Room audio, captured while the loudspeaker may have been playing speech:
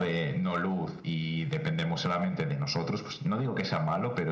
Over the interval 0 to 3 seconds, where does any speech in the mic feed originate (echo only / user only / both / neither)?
echo only